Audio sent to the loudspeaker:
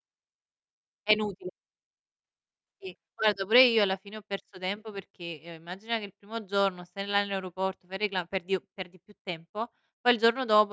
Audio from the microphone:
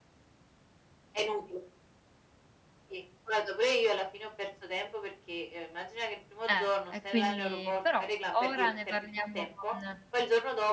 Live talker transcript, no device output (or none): Eh. E quindi però ora ne parliamo con